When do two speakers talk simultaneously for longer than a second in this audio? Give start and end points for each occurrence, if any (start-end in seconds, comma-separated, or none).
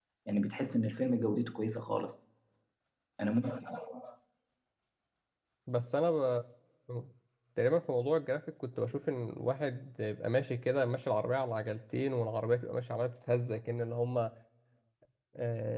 none